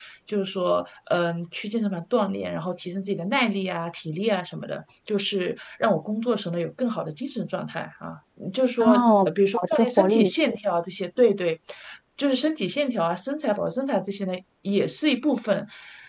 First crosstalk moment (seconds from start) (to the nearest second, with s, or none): 9 s